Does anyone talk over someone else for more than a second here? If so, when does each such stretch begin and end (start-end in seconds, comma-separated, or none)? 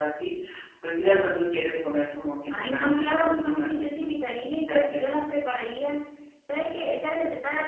2.5-4.1